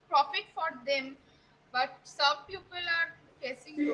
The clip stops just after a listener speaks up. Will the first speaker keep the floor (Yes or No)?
No